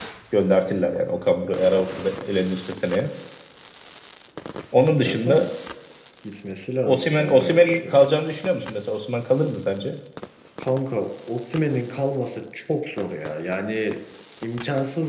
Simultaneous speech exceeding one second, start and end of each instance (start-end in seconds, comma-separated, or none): 6.8-8.1